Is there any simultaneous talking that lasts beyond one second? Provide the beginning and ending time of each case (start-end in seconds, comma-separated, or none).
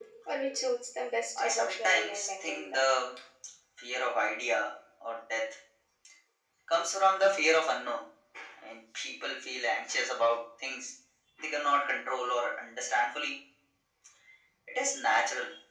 1.4-2.8